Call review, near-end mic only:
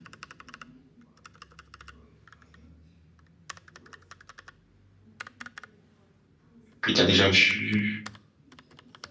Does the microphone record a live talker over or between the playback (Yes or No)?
Yes